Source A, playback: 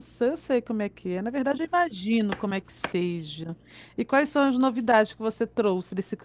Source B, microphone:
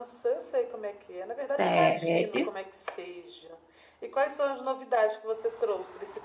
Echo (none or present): present